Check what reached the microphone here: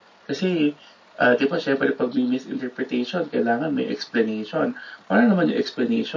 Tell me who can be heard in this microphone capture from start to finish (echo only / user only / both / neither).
echo only